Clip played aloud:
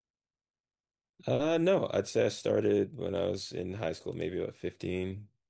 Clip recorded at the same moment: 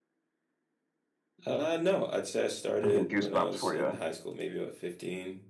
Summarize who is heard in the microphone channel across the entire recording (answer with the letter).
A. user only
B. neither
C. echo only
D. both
D